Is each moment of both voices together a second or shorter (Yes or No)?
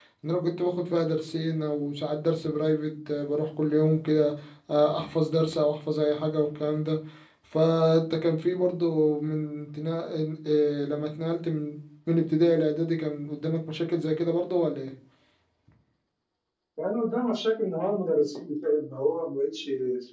Yes